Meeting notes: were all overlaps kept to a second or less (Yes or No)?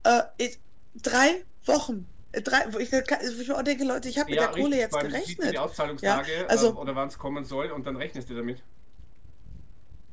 No